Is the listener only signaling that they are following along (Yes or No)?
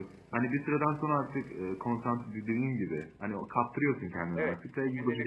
No